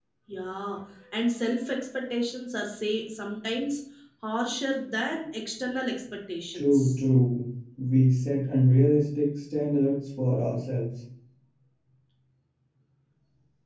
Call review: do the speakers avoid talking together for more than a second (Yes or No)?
Yes